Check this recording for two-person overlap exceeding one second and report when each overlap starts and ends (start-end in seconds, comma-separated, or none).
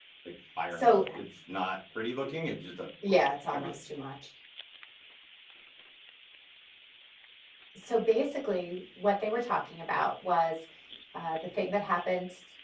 none